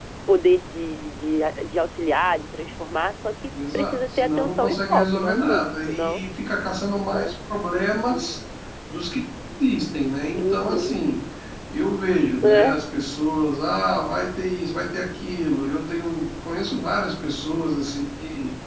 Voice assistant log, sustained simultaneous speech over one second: present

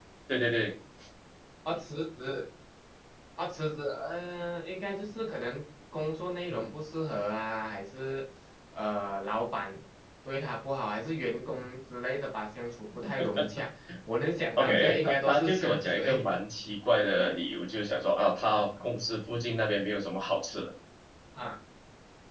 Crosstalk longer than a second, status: present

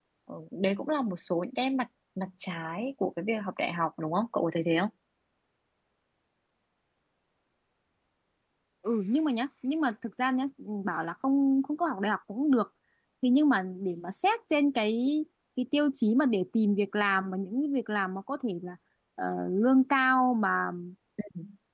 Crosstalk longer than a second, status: none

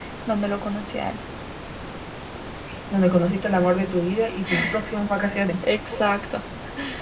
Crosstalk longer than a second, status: none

